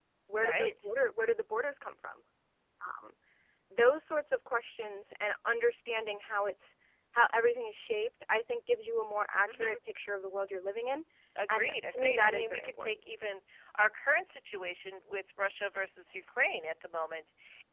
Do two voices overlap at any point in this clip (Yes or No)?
Yes